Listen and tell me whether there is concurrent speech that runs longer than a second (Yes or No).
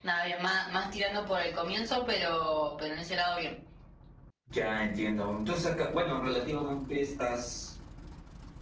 No